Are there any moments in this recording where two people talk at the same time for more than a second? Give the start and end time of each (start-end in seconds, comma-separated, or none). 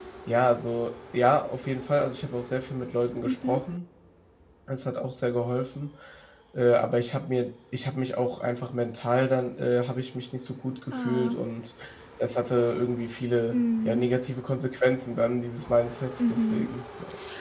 none